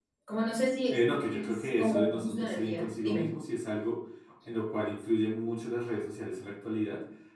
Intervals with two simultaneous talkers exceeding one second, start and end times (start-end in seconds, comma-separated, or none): 0.9-3.3